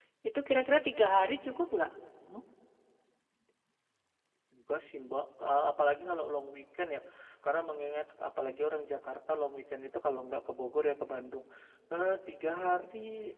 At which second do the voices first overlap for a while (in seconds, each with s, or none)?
none